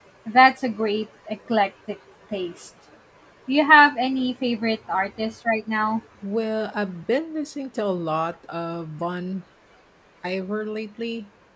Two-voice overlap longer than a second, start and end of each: none

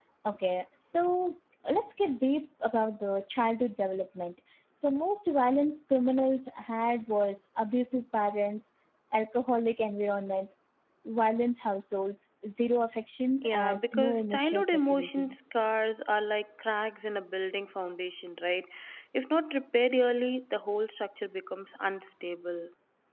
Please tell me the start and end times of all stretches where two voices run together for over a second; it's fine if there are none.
13.4-15.3

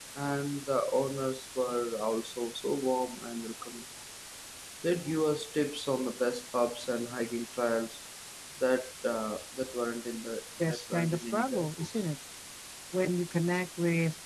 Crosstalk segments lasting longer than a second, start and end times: 10.7-11.9

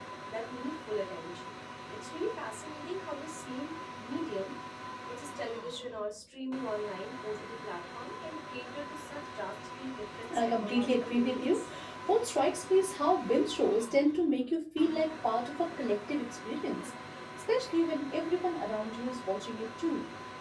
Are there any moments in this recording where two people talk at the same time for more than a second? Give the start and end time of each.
10.4-11.6

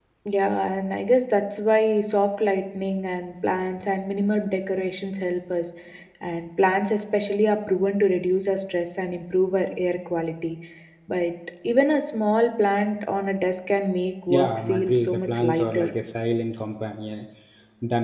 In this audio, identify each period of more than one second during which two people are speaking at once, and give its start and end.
14.3-15.9

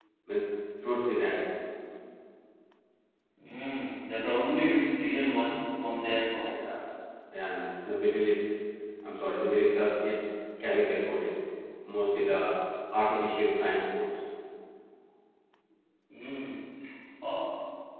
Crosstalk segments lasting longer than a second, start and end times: none

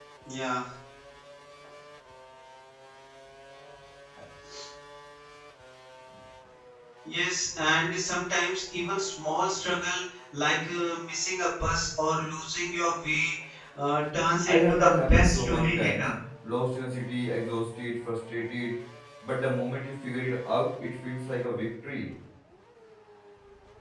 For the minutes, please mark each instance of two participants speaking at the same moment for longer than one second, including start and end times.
14.5-16.0

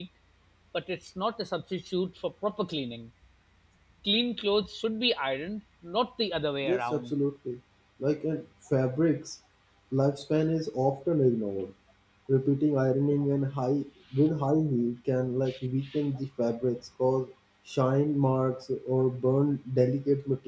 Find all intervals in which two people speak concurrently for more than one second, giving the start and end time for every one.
none

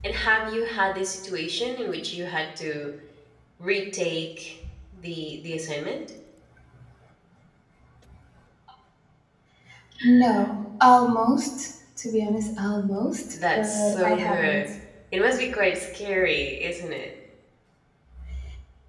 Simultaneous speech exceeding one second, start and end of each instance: 13.3-14.7

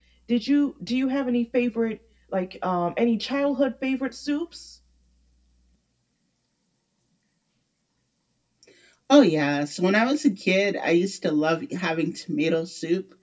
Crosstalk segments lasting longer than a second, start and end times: none

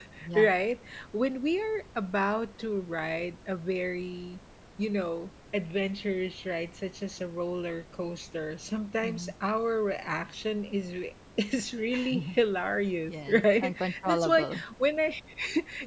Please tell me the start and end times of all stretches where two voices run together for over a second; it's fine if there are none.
13.1-14.6

